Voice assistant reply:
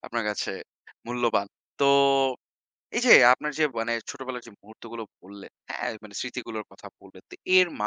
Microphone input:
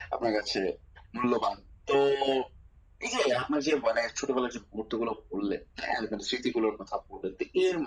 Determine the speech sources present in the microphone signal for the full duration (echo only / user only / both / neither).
echo only